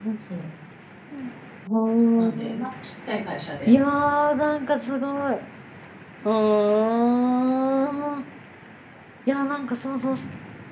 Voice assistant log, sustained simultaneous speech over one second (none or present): none